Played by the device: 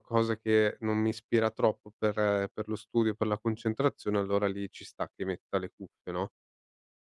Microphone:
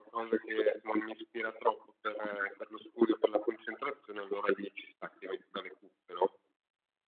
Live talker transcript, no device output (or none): none